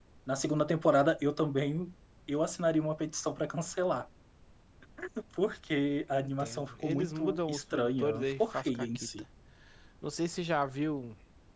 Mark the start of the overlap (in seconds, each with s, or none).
6.2 s